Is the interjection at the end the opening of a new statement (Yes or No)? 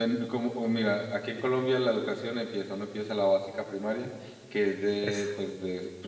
No